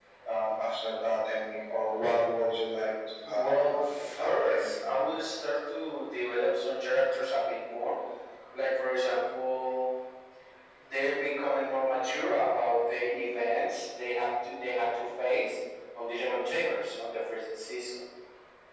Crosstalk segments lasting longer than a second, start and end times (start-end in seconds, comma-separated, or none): 3.2-4.9